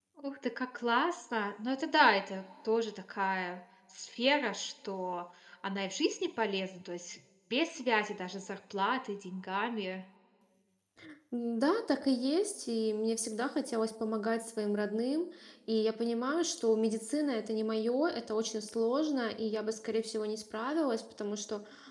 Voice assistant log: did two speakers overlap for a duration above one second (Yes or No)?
No